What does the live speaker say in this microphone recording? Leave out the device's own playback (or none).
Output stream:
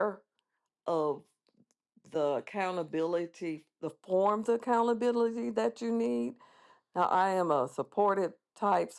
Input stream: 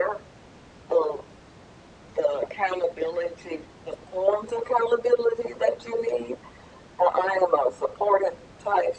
none